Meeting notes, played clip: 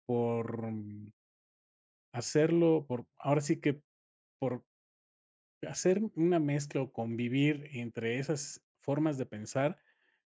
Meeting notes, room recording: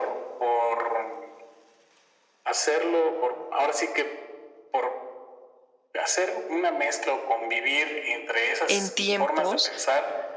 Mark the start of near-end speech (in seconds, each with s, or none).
8.6 s